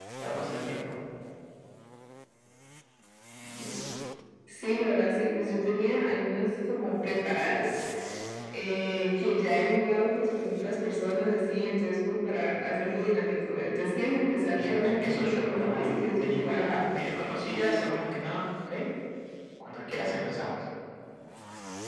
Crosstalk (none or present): present